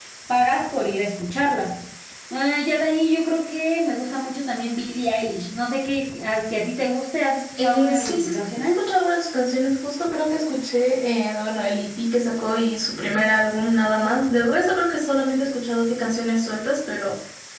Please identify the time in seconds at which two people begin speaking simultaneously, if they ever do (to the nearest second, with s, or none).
8 s